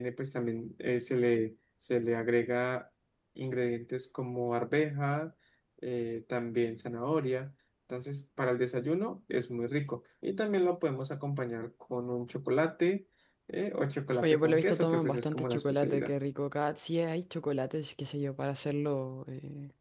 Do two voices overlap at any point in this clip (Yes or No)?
Yes